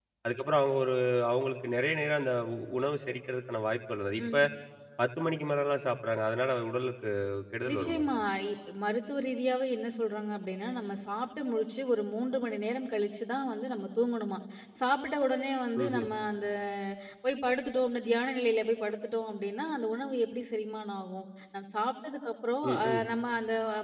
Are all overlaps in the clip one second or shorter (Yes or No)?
Yes